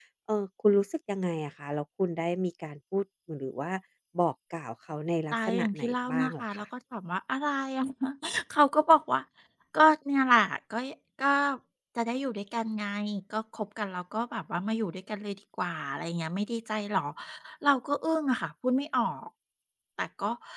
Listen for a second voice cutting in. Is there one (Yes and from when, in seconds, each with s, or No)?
Yes, from 5.3 s